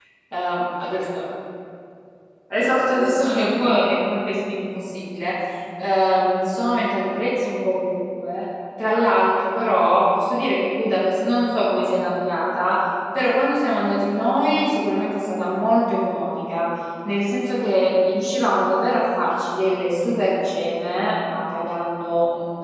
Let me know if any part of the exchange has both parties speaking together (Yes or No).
No